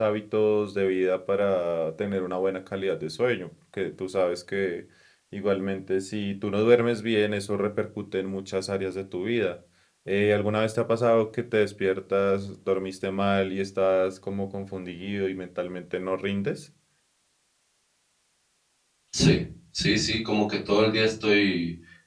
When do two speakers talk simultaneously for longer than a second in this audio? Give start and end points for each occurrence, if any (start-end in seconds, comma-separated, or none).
none